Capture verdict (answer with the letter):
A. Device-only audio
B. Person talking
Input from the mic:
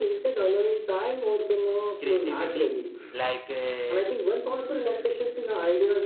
B